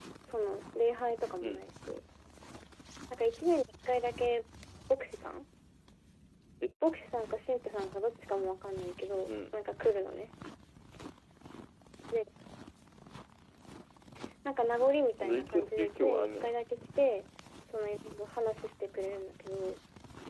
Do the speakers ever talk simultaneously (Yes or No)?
Yes